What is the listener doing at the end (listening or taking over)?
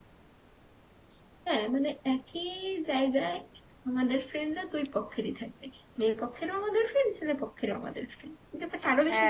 taking over